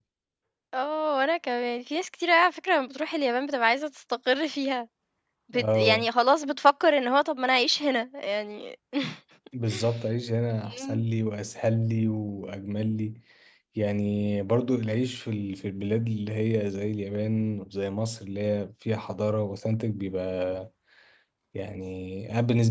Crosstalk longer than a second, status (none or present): none